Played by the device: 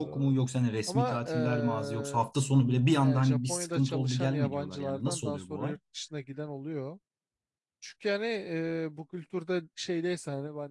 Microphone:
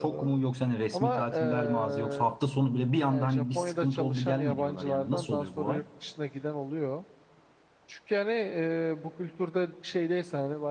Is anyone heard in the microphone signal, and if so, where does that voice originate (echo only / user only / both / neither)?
echo only